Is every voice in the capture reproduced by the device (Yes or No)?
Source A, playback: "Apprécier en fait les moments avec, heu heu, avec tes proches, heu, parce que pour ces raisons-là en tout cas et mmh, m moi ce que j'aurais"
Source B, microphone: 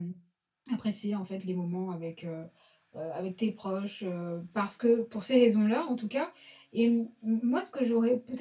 Yes